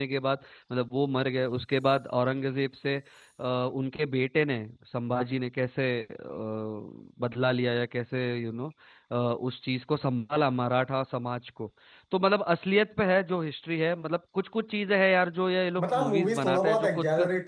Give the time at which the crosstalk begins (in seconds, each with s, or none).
15.8 s